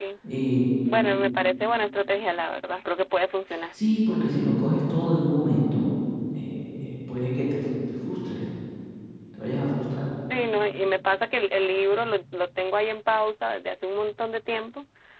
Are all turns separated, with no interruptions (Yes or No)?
Yes